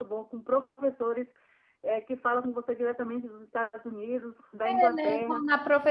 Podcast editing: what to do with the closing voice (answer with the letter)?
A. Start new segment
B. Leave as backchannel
A